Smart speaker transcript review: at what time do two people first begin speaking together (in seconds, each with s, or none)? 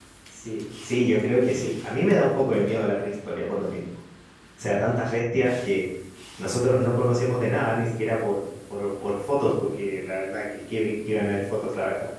none